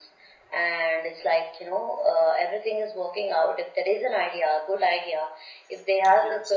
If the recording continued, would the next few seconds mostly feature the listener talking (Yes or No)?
No